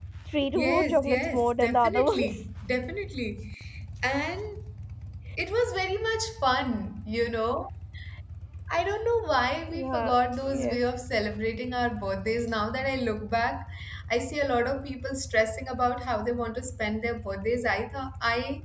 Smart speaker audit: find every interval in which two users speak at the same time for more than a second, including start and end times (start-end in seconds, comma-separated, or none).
0.6-2.3